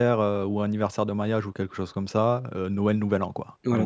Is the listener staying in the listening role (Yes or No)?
No